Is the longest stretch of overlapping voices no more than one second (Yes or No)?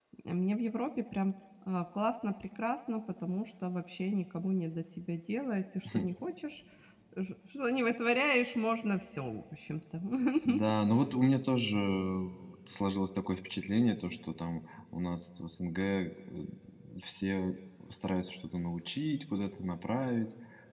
Yes